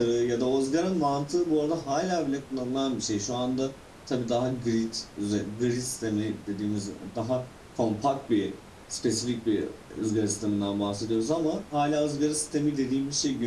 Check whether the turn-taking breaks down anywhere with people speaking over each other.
No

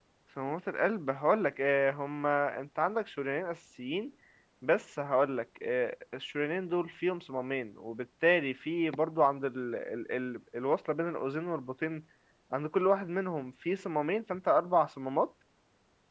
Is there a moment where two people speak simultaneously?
No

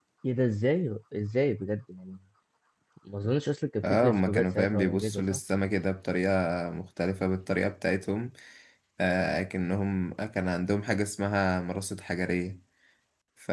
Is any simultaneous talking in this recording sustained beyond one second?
Yes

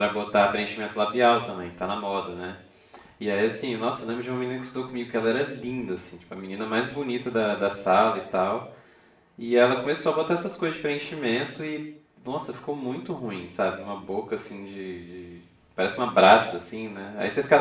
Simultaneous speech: No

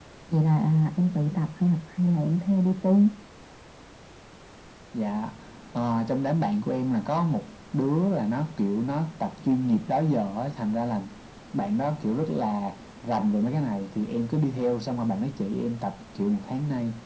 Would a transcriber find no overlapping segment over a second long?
Yes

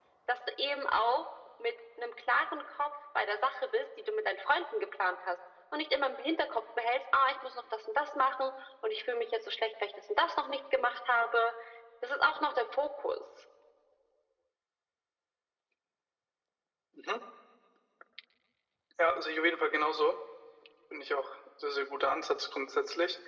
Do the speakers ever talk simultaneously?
No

